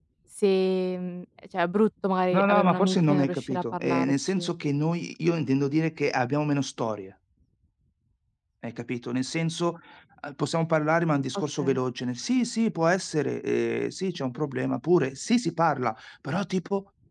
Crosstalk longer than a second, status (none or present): present